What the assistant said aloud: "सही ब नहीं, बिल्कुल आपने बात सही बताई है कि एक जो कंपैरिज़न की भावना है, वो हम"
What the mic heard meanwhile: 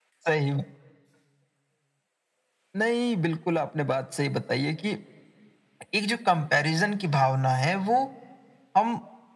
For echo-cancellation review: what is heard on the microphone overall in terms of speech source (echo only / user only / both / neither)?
echo only